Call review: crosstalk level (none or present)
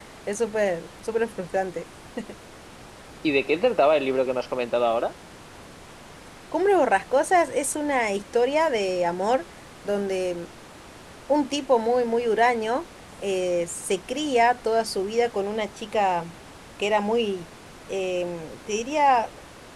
none